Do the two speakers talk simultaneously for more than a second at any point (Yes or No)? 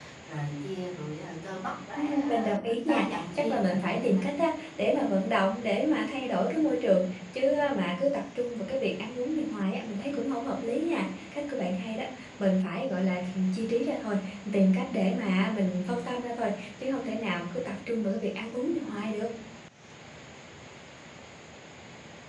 Yes